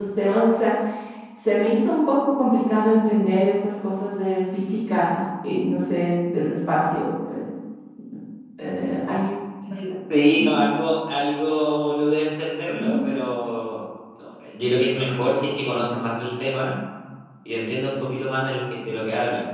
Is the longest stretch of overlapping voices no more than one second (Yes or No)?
Yes